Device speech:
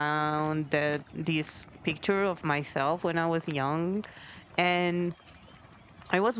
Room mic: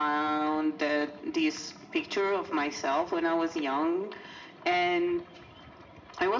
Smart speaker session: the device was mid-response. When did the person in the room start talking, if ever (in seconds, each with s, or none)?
none